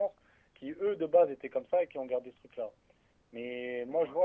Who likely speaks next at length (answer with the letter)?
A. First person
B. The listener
A